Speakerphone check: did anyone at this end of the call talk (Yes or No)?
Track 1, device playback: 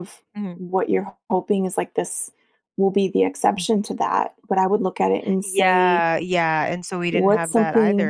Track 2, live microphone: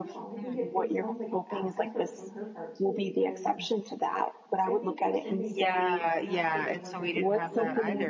Yes